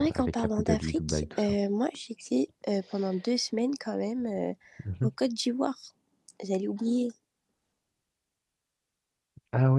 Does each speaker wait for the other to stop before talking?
No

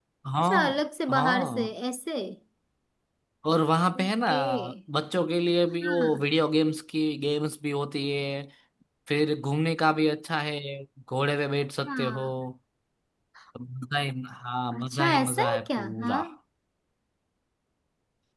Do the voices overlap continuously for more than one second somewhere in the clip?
Yes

